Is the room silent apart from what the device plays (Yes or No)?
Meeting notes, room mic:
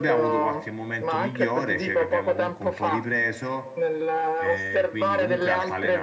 No